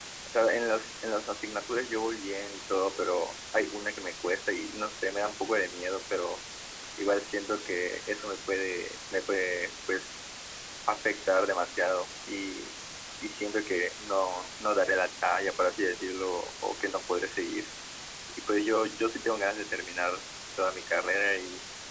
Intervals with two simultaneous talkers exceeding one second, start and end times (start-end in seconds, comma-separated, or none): none